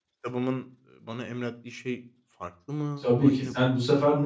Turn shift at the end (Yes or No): Yes